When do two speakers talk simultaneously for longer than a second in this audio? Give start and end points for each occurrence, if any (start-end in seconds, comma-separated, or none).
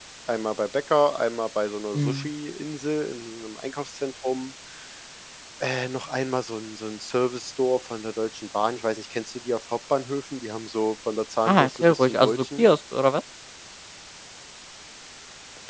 11.4-12.7